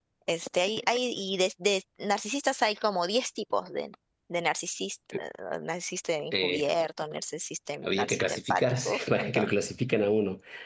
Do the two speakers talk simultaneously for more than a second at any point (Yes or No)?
Yes